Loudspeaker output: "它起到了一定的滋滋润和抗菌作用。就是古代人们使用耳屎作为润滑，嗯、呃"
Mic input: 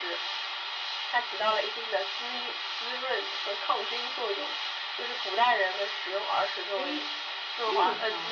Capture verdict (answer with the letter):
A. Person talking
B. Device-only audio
A